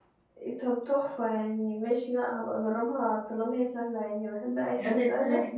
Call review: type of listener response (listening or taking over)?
taking over